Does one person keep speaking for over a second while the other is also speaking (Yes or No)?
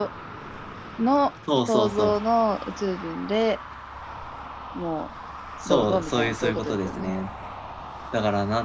Yes